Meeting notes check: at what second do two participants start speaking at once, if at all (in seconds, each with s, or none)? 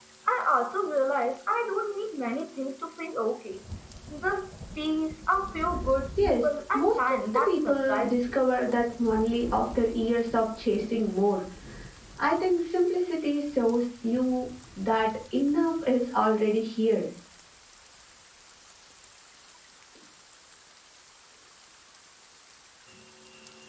6.2 s